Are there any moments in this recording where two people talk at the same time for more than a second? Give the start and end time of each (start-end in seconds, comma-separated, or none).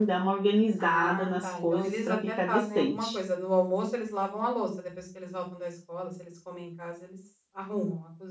0.8-3.2